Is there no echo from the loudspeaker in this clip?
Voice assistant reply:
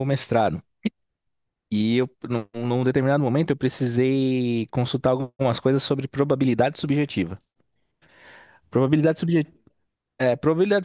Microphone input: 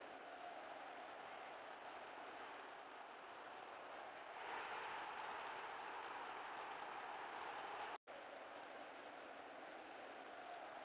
Yes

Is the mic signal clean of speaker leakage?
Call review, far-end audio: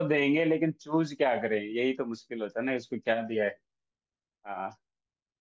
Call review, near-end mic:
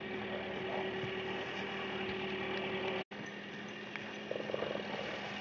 Yes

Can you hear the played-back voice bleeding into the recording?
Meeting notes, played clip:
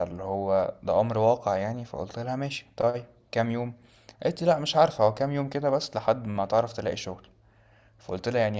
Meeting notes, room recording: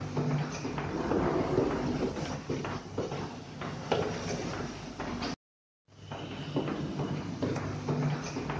No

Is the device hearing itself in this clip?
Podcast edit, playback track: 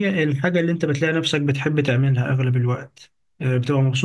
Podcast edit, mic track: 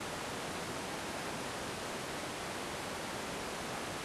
No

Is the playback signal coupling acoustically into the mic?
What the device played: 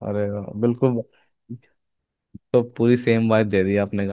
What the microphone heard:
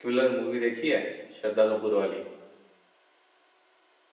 No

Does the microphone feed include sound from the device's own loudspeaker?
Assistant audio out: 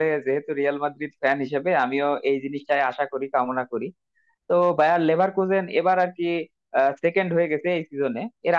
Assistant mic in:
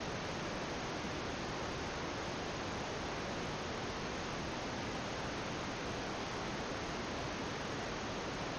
No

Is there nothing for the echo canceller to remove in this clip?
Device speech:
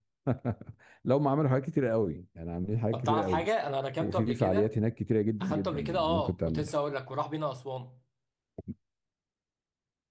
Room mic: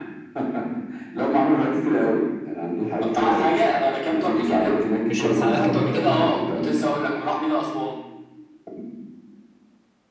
No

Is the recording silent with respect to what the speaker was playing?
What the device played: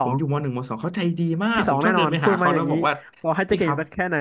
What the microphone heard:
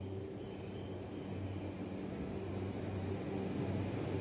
Yes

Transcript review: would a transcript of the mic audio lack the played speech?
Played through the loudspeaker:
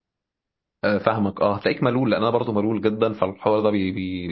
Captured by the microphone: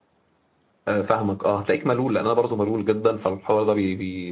No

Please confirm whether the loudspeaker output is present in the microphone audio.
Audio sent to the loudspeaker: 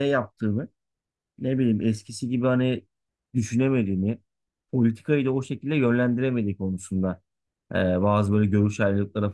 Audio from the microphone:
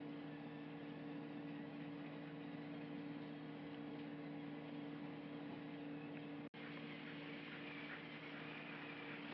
No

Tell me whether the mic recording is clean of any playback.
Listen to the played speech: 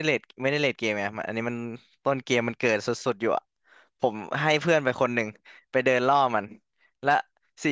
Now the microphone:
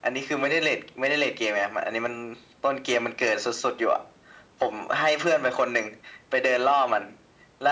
No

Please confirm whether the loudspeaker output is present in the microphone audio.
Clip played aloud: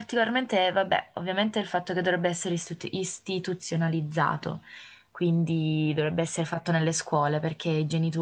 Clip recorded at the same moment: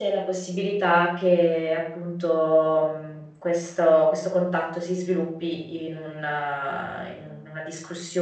No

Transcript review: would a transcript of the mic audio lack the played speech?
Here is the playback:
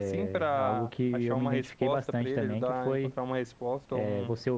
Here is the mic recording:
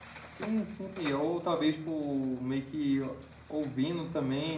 Yes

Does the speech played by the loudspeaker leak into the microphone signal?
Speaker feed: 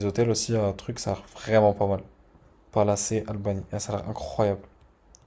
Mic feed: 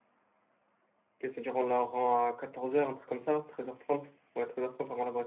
No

